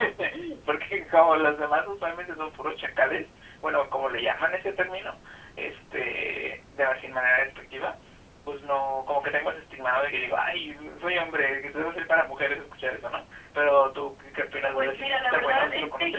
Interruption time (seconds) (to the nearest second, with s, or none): 15 s